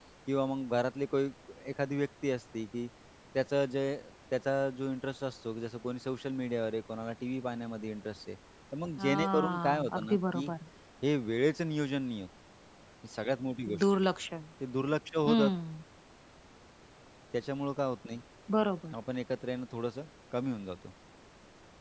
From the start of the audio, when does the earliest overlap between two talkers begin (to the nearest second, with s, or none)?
9 s